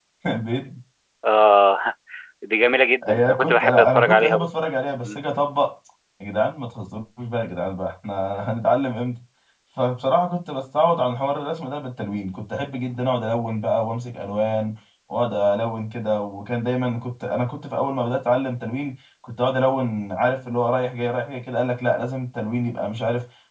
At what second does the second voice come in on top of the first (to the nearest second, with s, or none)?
3 s